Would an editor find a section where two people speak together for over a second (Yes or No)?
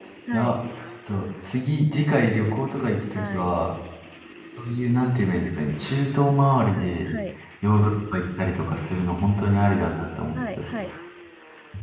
No